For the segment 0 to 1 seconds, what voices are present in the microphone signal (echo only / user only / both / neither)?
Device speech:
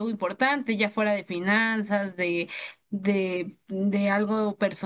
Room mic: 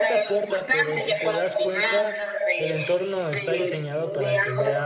both